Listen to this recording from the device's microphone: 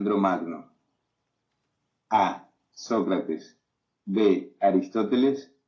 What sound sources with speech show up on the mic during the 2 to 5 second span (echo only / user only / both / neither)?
echo only